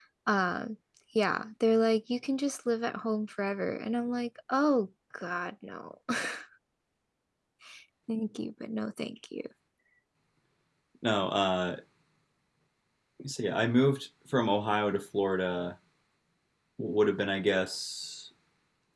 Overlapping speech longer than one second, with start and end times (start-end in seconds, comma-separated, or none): none